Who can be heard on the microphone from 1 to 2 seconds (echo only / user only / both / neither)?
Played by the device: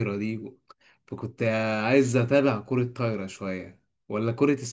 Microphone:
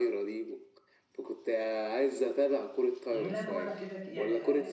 echo only